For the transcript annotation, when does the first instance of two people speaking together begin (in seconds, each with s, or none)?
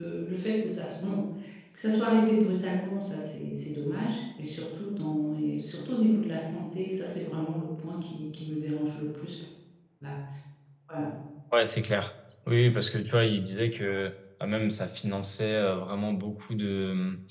none